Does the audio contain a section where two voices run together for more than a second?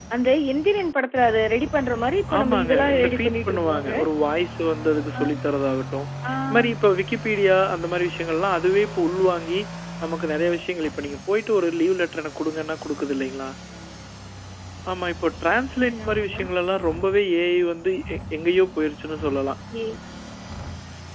Yes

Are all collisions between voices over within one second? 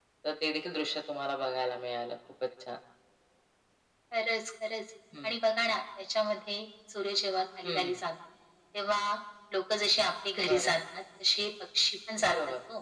Yes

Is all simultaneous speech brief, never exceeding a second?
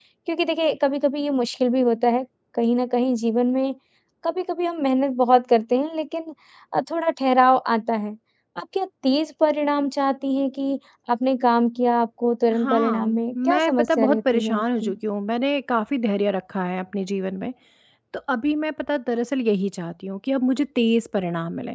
No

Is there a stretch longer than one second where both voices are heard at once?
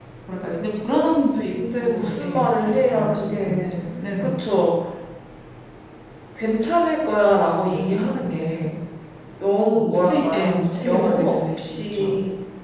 Yes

